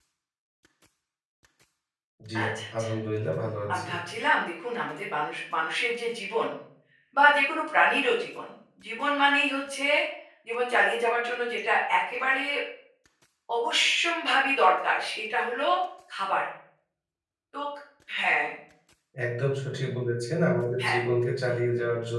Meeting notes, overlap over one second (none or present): none